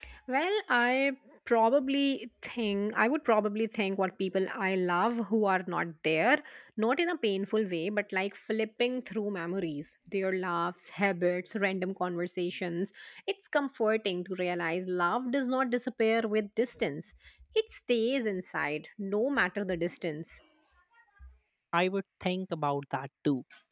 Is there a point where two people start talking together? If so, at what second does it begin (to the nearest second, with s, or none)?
none